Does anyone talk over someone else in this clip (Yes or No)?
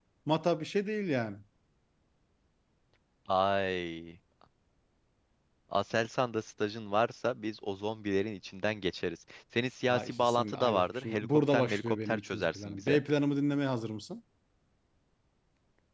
Yes